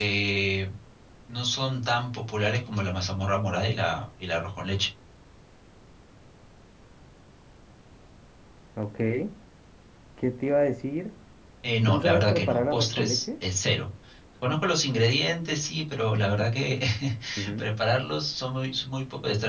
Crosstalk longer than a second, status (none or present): present